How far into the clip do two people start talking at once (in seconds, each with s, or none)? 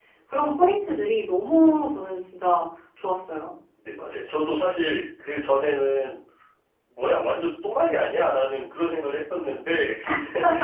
none